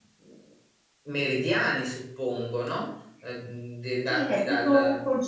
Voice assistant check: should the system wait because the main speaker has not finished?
No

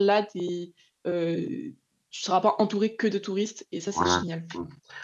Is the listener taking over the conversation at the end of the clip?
Yes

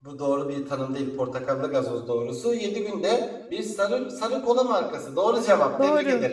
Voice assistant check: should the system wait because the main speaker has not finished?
No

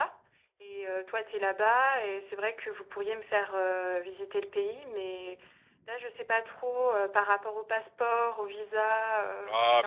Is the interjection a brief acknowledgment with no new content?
No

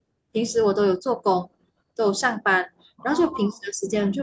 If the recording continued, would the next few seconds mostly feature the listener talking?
No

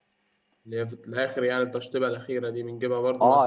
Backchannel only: No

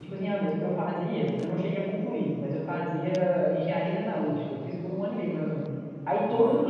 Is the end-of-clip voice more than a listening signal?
No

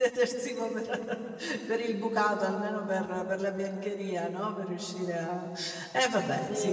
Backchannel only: No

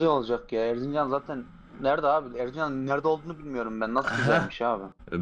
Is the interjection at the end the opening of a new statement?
Yes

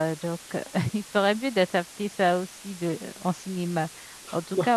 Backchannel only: Yes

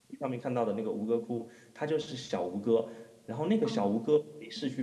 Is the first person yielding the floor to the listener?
No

